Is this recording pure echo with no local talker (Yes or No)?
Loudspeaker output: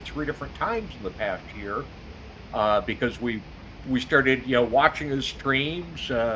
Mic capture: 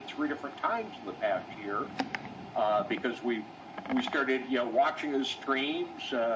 Yes